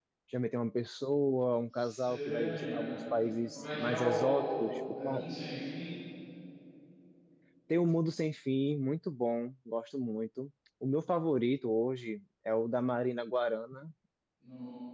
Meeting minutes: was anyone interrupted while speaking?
Yes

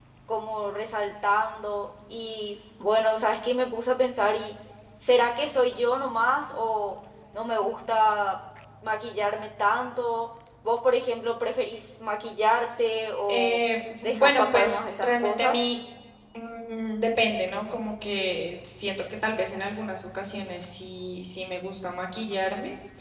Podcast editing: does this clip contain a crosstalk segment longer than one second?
Yes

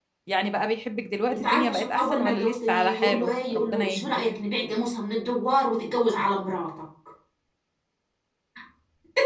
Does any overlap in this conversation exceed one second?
Yes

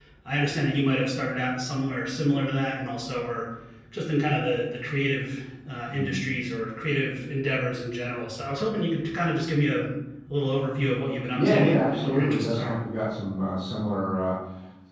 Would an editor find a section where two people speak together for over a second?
Yes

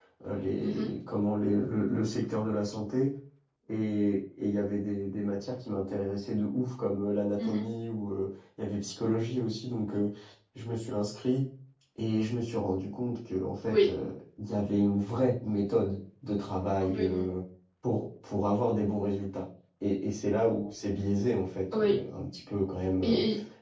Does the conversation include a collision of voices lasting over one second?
No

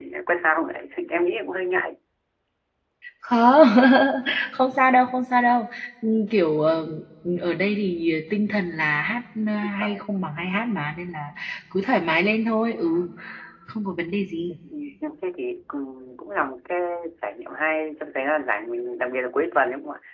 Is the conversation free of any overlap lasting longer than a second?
Yes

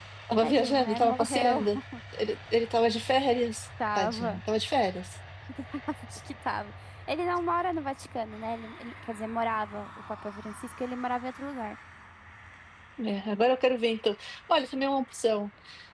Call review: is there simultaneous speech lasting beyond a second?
Yes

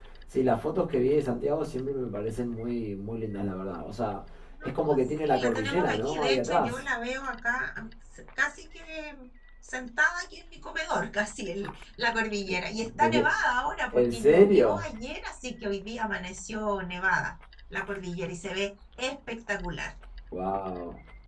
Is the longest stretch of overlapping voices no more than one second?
No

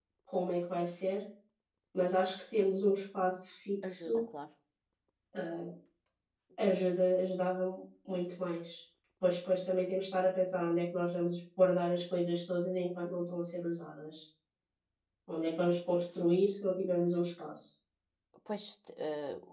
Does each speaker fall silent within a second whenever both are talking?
Yes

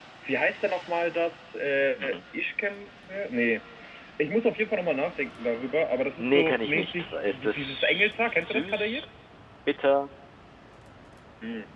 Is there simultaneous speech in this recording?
Yes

